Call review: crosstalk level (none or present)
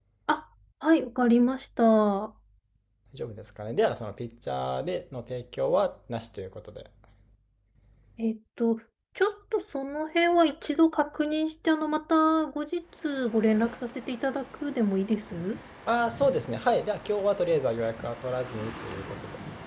none